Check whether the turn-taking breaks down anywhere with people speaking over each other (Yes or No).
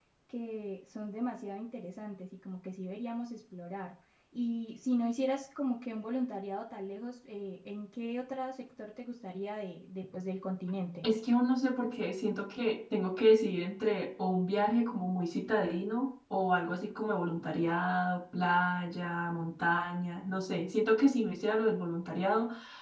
No